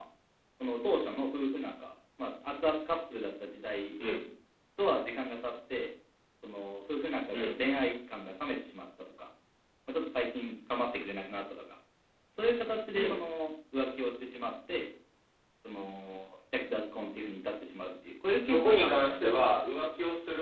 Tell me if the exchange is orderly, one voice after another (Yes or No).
No